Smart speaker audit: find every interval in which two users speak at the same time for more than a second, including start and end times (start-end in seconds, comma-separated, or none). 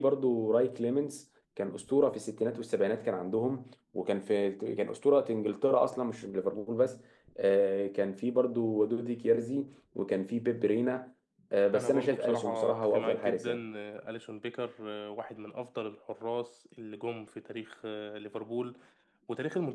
11.7-13.6